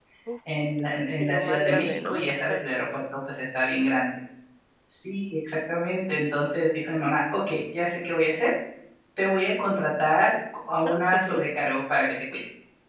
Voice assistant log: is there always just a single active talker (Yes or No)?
No